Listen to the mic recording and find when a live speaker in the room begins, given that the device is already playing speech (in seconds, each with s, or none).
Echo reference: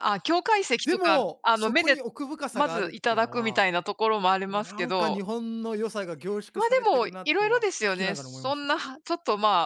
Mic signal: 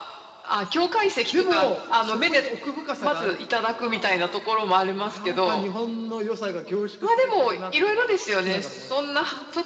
none